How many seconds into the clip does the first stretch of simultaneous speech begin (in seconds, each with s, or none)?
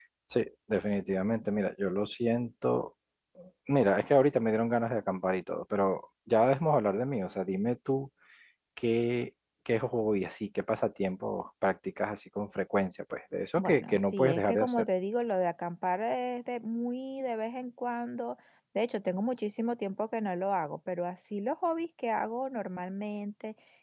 13.6 s